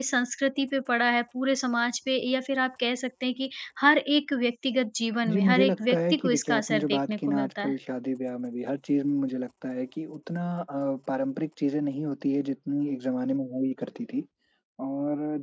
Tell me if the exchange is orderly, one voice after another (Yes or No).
No